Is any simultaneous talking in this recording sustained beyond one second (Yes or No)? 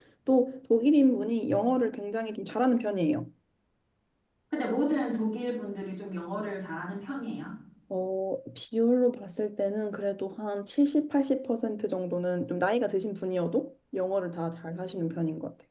No